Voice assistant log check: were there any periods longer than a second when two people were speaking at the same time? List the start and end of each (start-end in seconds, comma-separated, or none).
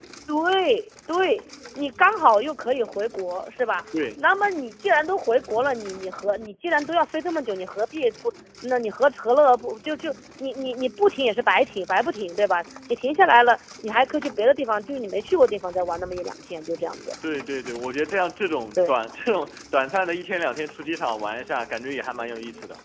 none